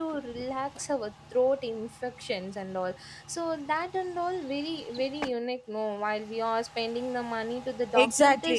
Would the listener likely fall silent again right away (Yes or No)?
No